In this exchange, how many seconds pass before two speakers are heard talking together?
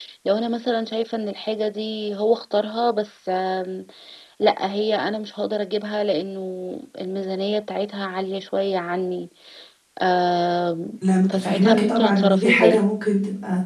11.3 s

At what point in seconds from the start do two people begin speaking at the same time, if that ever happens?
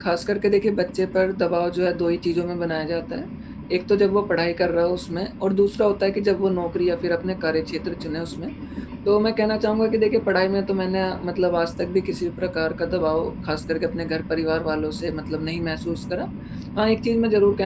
none

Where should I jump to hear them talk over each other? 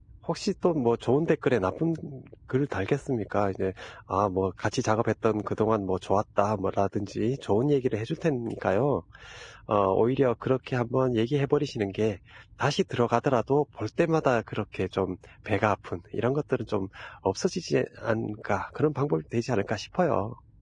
none

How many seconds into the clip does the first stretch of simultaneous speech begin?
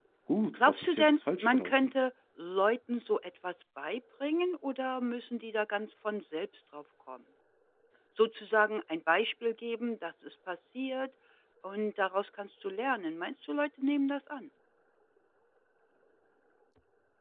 0.5 s

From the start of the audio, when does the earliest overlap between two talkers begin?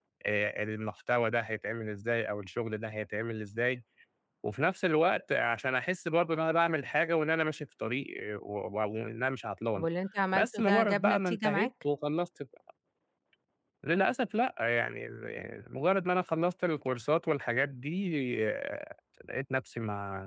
10.3 s

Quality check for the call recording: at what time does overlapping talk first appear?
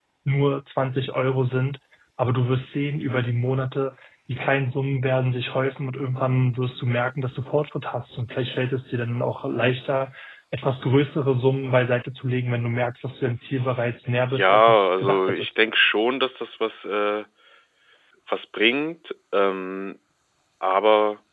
14.3 s

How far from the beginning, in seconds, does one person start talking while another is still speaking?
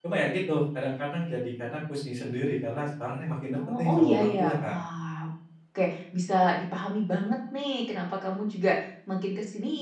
3.5 s

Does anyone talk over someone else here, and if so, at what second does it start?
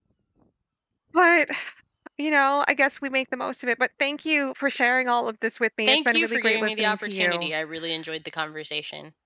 5.9 s

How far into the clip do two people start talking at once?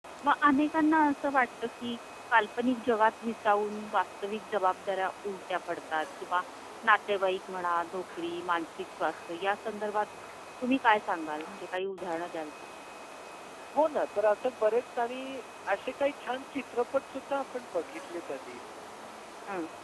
none

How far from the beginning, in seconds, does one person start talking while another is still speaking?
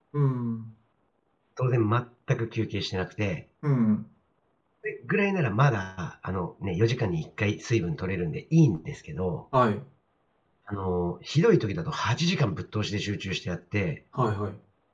none

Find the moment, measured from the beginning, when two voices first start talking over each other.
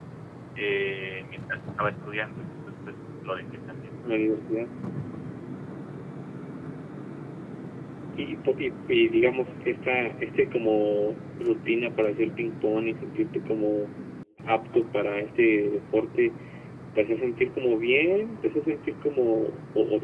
none

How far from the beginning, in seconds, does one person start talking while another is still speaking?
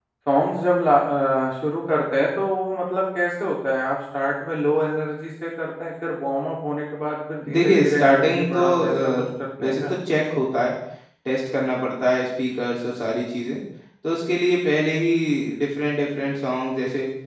7.4 s

